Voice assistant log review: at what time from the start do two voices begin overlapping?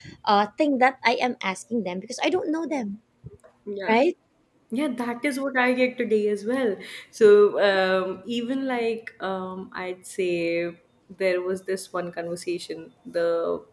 none

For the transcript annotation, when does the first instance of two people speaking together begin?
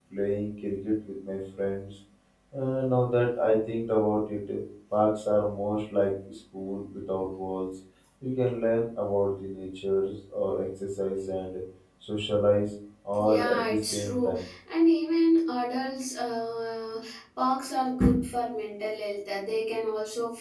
13 s

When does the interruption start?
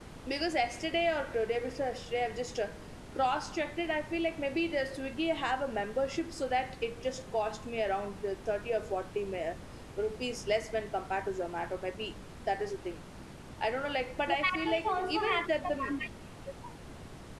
14 s

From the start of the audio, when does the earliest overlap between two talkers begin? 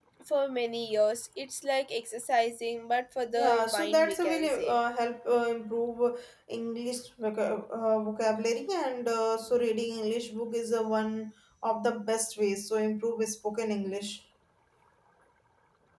3 s

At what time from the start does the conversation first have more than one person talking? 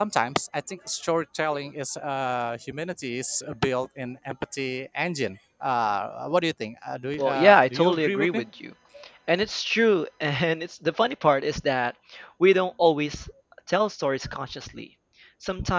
7 s

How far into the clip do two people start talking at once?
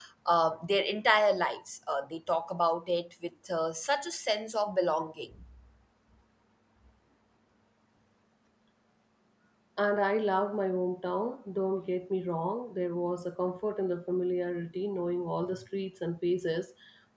none

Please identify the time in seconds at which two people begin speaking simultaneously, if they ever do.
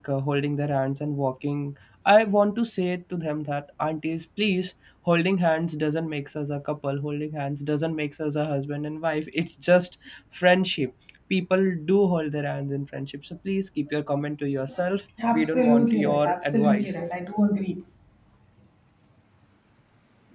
15 s

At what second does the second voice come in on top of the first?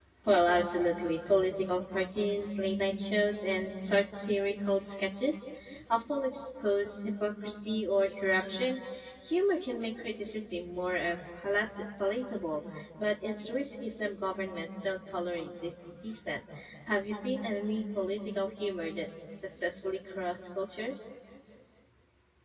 none

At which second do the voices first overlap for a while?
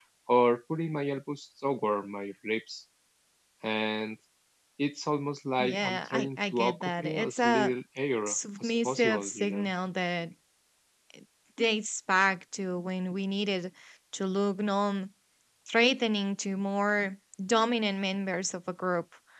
6 s

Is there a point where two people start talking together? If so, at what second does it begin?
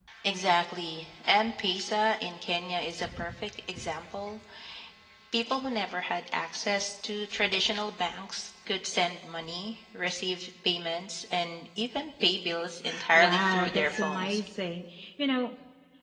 13 s

